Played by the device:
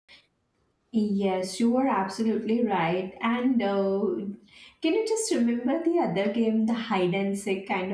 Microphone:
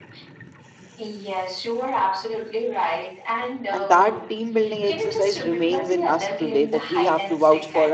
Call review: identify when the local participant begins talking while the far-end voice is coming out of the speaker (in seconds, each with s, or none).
3.7 s